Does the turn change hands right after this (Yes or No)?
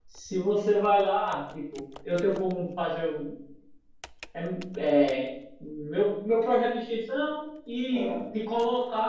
No